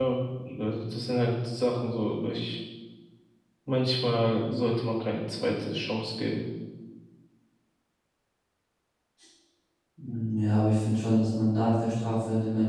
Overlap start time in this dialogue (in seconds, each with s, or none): none